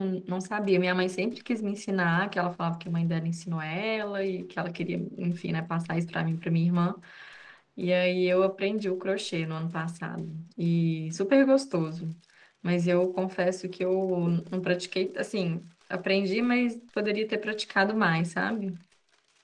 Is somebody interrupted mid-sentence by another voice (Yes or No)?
No